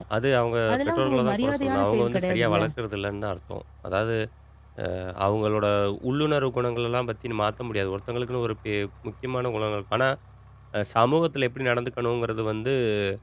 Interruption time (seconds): 1 s

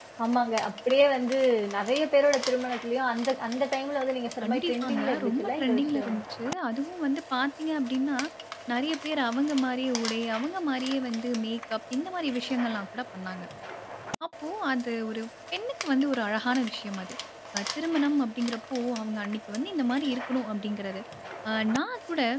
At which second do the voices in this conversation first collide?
4 s

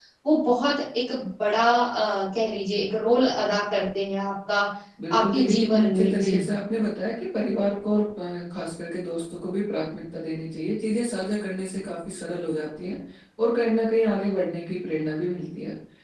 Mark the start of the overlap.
5 s

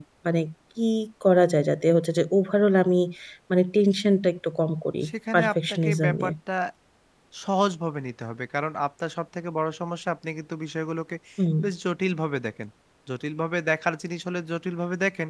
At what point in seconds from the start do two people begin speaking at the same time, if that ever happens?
5 s

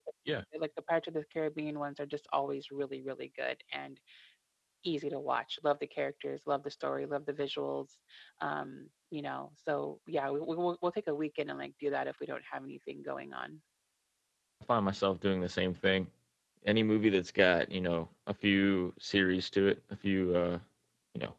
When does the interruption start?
none

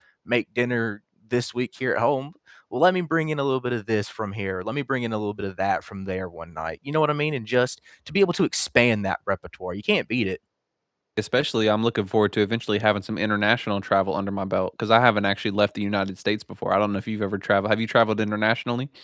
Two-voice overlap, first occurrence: none

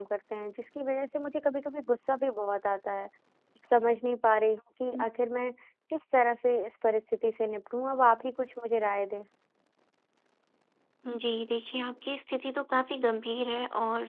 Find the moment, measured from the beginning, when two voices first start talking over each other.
none

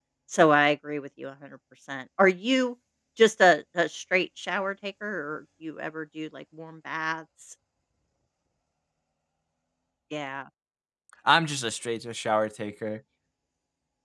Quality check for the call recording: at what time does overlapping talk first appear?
none

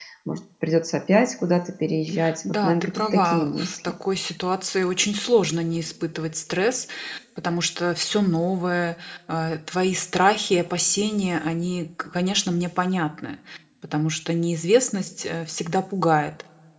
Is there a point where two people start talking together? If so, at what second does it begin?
2 s

